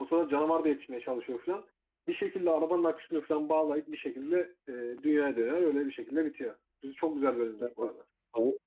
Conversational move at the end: taking over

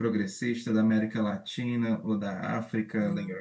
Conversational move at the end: taking over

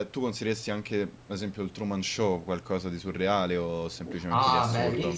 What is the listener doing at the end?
taking over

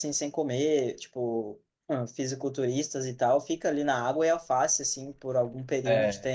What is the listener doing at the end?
listening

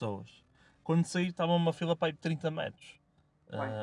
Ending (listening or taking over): listening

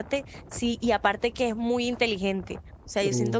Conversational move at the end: listening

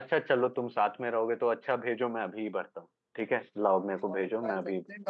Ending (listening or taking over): taking over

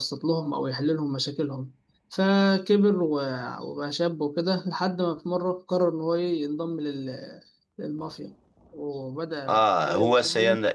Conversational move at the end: taking over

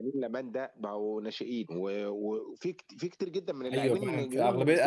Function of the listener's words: taking over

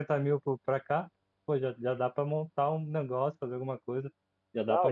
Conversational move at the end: taking over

